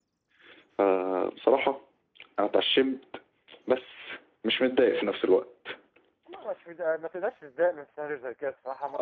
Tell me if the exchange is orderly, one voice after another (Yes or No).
Yes